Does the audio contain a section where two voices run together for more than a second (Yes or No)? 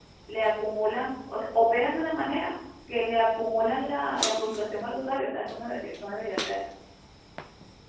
No